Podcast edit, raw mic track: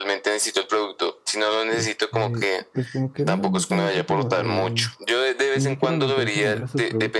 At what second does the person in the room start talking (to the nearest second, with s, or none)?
2 s